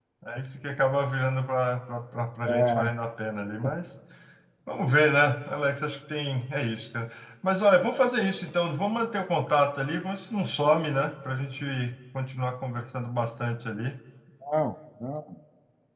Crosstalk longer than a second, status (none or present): none